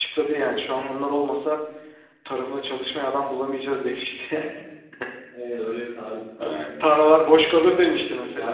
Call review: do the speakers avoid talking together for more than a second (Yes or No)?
No